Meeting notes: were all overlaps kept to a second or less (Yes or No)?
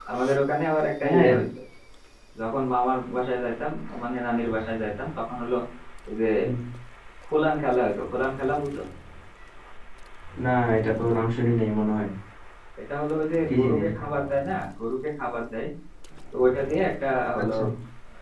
Yes